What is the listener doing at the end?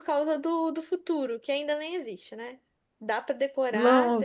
taking over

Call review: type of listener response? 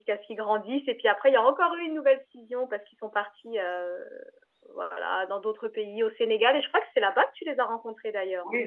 taking over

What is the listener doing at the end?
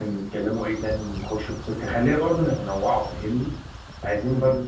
listening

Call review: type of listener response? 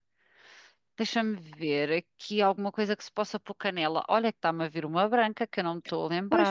taking over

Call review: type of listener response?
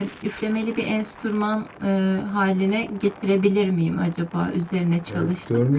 taking over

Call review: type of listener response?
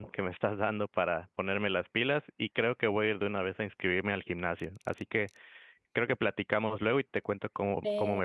taking over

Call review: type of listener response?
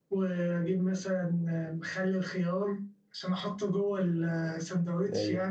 taking over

